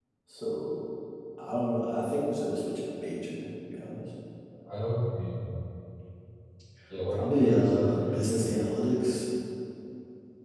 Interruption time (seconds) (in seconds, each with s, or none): 7.1 s